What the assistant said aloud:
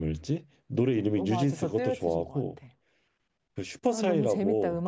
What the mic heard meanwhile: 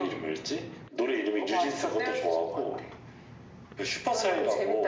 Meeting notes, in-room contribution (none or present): none